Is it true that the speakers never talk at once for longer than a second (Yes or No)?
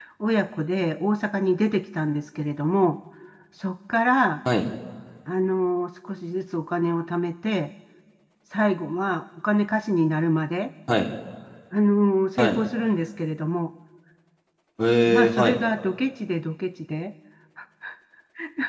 Yes